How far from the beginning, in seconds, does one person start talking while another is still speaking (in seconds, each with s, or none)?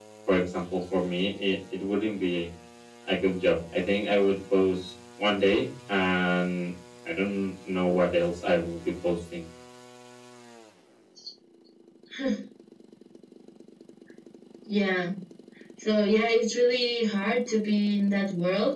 none